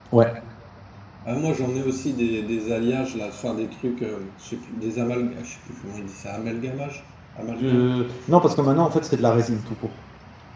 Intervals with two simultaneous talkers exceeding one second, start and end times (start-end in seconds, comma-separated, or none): none